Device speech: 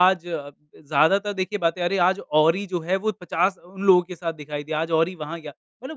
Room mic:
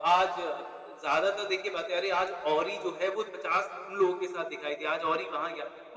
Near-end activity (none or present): none